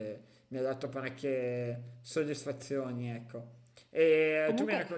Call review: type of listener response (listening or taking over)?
listening